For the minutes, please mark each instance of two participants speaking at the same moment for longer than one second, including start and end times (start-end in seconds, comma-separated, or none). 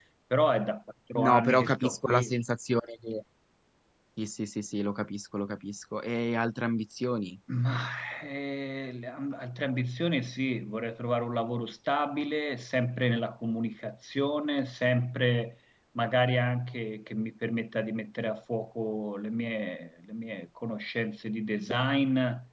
1.2-2.4